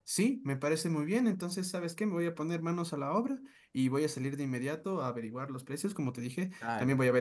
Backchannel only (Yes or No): Yes